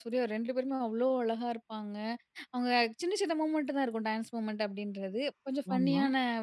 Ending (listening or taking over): listening